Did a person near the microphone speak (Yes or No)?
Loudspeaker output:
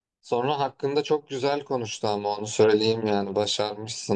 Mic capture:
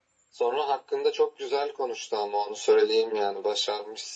No